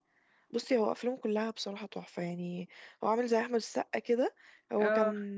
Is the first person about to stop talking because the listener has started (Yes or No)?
No